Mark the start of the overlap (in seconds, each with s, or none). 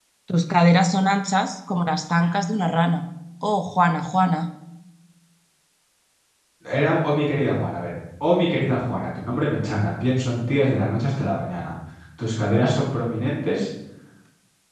none